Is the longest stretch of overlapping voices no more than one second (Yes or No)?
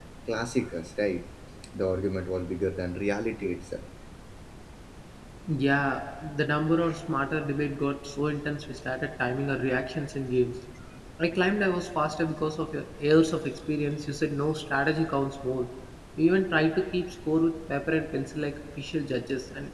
Yes